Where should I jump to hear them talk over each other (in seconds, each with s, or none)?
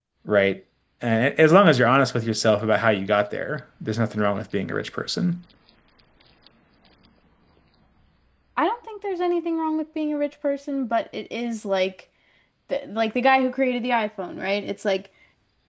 none